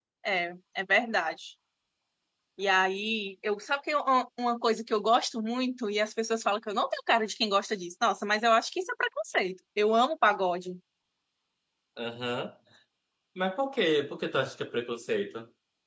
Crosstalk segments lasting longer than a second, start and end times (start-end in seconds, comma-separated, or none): none